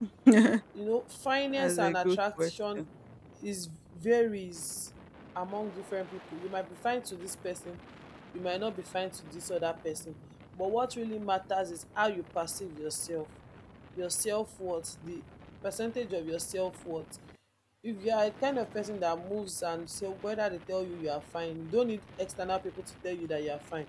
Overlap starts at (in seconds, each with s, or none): 1.5 s